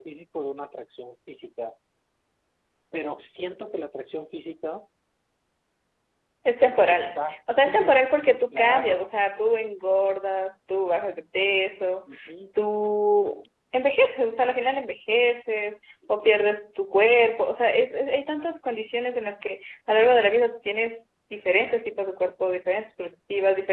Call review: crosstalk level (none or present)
present